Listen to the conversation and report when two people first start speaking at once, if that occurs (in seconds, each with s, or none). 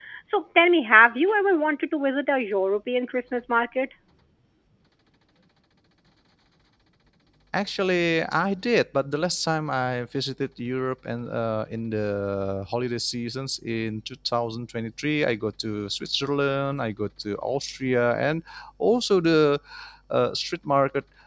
none